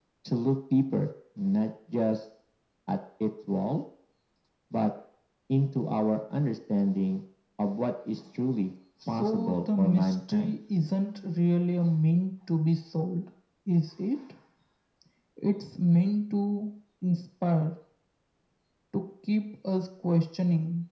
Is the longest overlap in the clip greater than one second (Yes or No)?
Yes